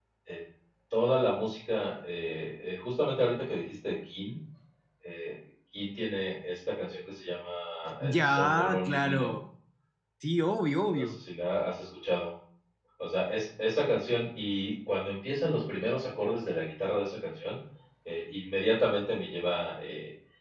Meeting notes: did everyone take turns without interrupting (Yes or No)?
No